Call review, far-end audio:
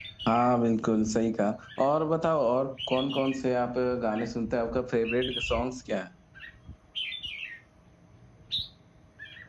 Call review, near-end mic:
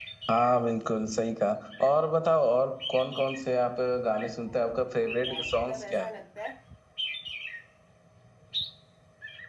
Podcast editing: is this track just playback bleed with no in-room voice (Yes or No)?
No